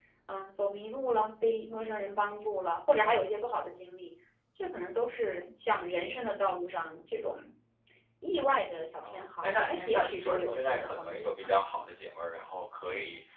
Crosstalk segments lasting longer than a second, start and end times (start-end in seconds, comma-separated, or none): 9.1-11.5